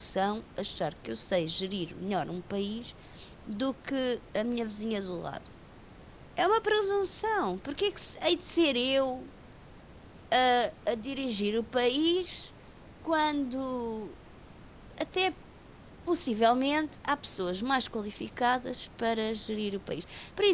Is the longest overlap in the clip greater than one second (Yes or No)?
No